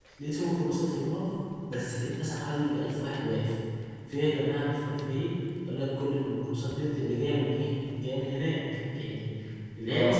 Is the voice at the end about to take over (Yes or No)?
No